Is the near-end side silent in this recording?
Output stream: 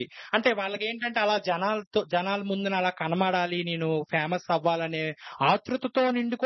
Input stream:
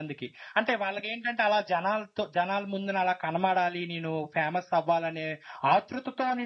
Yes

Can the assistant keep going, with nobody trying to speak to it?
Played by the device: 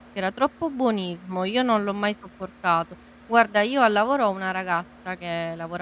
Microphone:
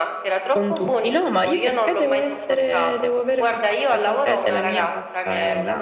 No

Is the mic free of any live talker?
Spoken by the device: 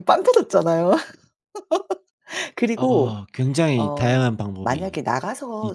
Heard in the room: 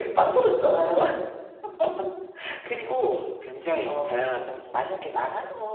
Yes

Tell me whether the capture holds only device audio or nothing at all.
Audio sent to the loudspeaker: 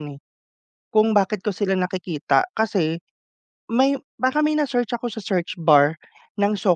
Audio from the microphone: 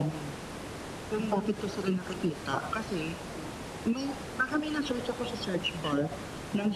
Yes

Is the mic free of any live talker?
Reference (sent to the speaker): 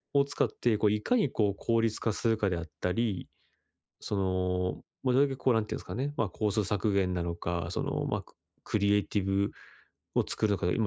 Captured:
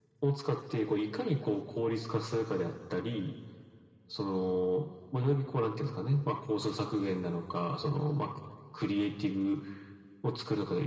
Yes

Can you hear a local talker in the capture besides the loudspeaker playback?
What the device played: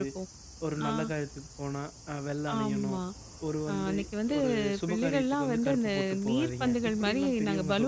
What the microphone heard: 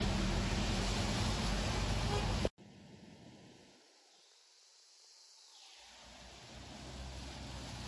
No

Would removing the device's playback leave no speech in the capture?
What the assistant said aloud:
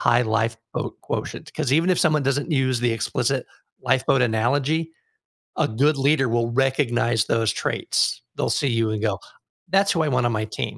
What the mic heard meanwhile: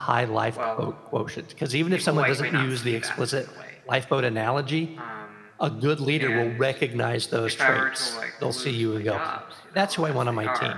No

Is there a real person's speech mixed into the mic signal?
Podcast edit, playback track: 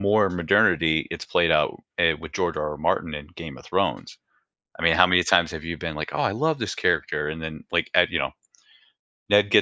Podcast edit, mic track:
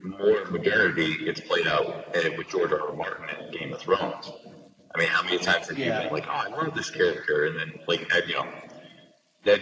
Yes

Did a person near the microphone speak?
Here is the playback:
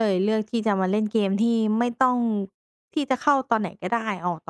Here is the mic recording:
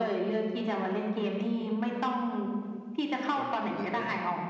Yes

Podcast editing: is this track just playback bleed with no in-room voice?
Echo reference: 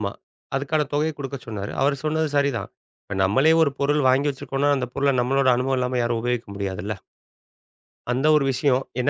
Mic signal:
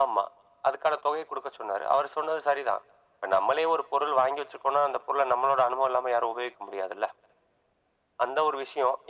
Yes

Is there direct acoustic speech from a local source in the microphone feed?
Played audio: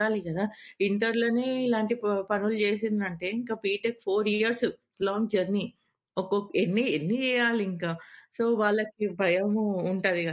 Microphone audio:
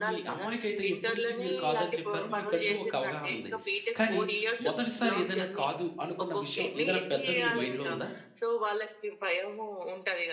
Yes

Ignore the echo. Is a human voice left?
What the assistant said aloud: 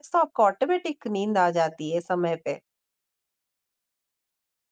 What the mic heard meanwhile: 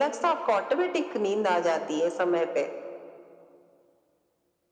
No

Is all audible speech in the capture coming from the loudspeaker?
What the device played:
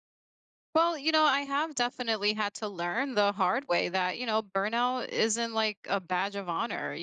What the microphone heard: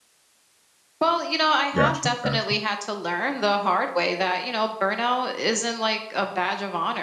No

